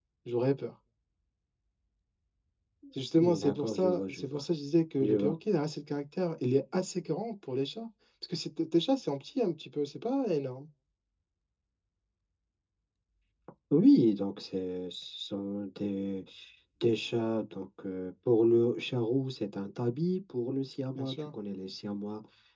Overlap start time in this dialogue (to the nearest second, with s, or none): 3 s